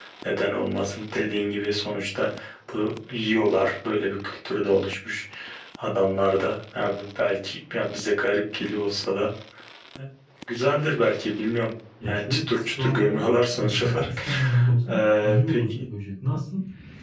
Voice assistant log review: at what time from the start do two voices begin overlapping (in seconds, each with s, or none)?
12.0 s